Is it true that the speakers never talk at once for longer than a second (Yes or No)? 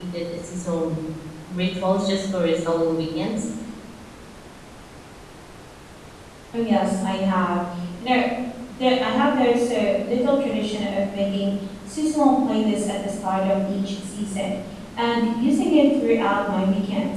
Yes